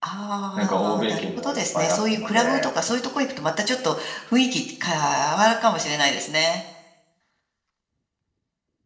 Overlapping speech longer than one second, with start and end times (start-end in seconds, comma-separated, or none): 0.6-2.4